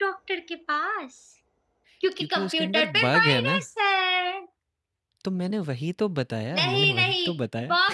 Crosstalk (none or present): present